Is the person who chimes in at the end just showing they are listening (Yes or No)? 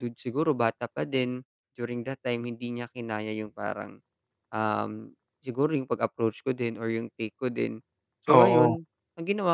Yes